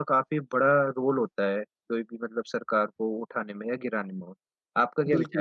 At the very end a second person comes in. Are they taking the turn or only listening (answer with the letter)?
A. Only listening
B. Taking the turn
B